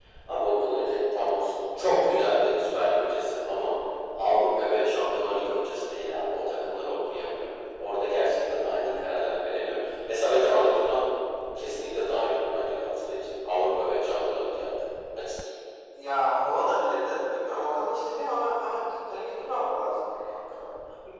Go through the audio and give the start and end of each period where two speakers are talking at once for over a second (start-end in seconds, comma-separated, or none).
none